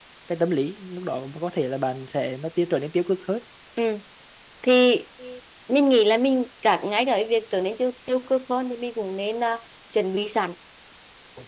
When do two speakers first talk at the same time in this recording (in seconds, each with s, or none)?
none